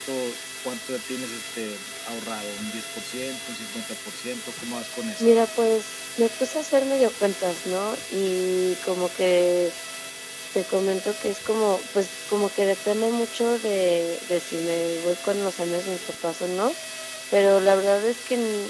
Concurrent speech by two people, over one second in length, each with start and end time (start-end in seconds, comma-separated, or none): none